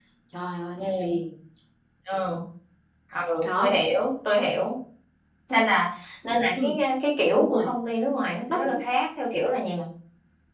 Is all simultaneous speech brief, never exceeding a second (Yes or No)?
Yes